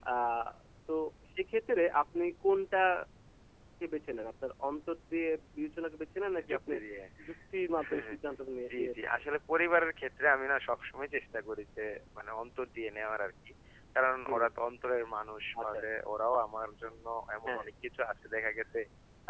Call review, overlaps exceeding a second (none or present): none